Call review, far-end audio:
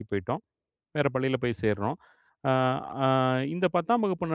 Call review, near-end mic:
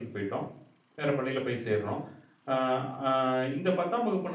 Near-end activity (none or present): none